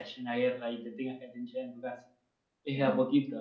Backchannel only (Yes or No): Yes